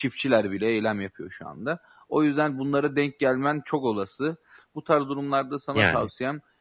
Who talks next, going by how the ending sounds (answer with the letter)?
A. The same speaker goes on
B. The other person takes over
A